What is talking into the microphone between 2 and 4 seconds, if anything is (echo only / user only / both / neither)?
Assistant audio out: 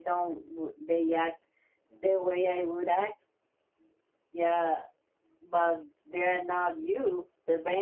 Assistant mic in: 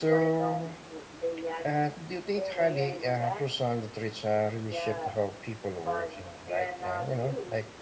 both